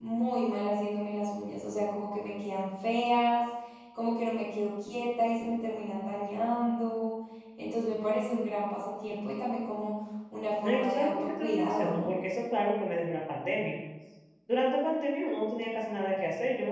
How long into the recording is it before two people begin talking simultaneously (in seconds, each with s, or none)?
10.6 s